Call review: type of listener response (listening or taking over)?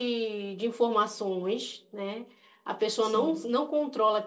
listening